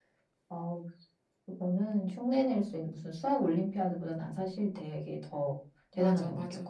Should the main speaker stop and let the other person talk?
Yes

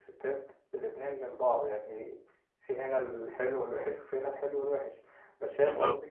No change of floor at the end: Yes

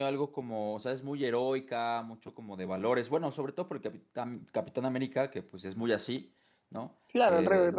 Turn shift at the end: Yes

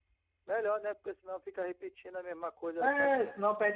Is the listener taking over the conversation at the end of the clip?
Yes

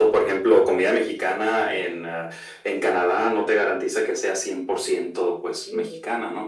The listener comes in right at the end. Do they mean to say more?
Yes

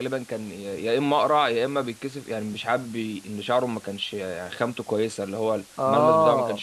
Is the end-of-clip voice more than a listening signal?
No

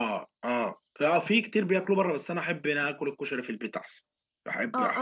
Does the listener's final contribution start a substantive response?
Yes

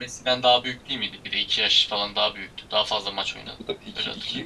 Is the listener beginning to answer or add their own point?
Yes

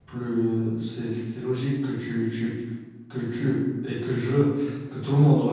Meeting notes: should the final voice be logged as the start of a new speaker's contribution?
No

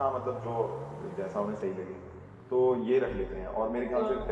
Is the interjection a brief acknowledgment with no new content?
Yes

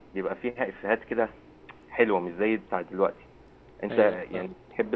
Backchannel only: Yes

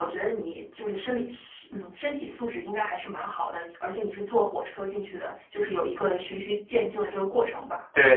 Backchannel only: No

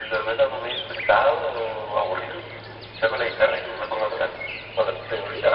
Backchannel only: Yes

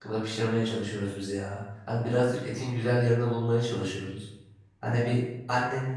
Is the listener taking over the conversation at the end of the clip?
No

